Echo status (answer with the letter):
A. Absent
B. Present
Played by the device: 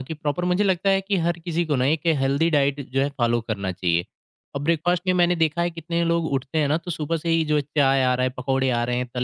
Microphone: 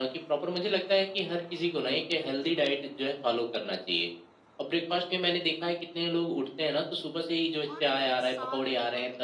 B